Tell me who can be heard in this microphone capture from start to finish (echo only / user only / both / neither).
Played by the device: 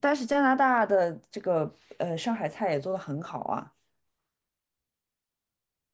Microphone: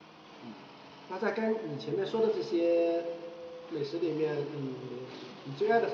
user only